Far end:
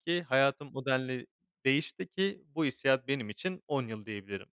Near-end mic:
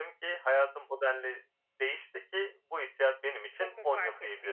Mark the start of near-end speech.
3.5 s

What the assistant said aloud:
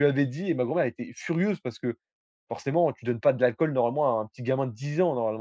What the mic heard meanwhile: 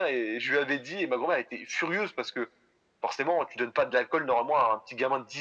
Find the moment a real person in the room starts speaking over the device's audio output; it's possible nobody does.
none

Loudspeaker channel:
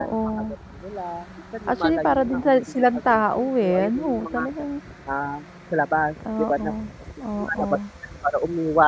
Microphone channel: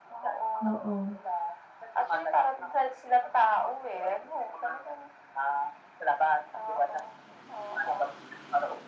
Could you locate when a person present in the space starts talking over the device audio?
0.6 s

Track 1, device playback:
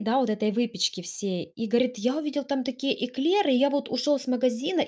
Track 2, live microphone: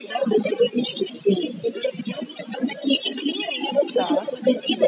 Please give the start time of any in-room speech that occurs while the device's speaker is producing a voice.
4.0 s

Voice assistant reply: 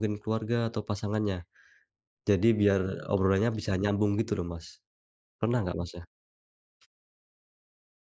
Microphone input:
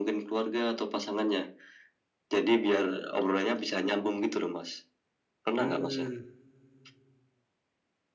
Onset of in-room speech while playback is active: 5.6 s

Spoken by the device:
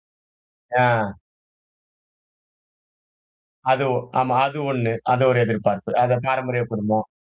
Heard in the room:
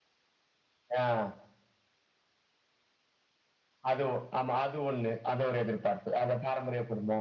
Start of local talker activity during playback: none

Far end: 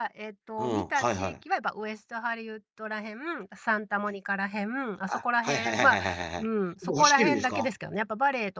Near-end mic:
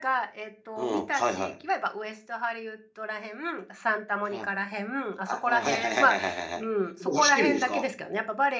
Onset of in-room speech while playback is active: 4.3 s

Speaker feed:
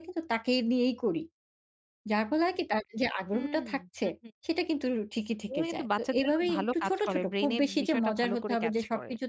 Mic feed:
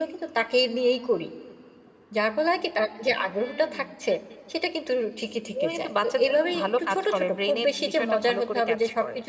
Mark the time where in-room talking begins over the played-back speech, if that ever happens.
none

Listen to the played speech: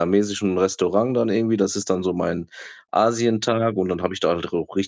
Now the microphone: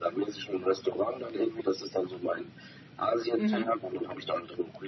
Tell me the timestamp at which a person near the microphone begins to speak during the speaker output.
3.4 s

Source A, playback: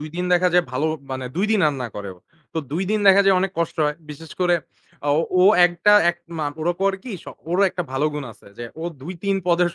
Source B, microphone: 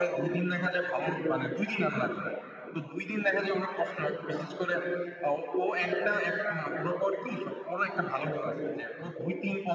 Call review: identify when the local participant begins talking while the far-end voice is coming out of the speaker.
none

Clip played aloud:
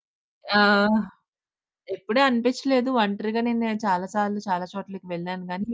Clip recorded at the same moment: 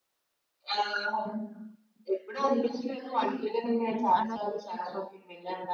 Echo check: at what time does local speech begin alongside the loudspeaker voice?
3.9 s

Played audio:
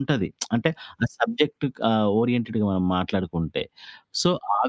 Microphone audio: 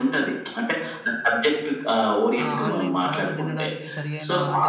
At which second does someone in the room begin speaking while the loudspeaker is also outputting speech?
2.4 s

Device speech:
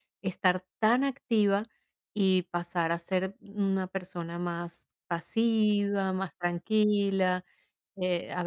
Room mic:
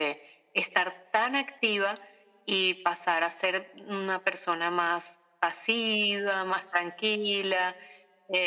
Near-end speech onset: none

